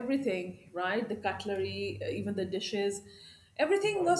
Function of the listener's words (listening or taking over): listening